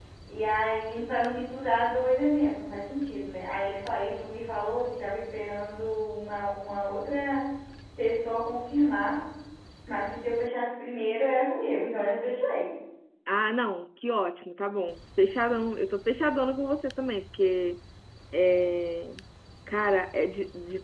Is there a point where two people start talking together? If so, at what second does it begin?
none

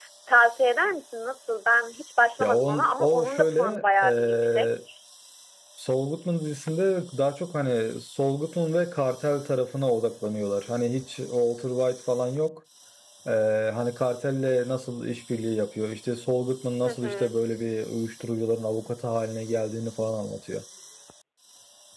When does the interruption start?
2.4 s

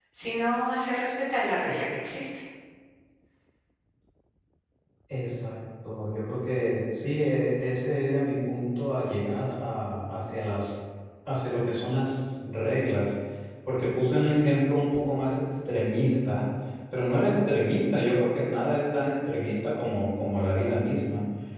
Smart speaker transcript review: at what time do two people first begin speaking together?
none

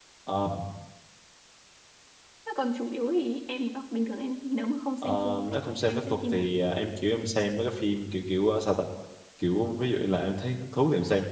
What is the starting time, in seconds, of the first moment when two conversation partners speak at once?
5.0 s

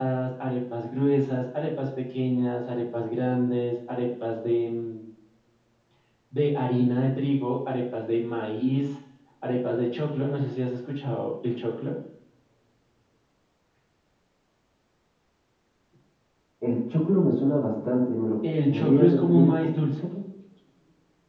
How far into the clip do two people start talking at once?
18.7 s

